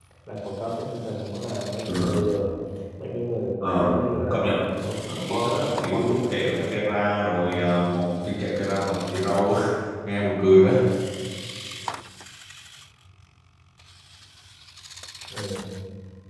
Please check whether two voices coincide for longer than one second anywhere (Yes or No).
Yes